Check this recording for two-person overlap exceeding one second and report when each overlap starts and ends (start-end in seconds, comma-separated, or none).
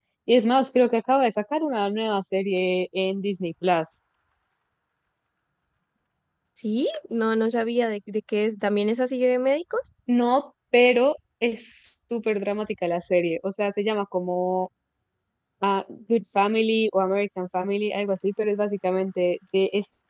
none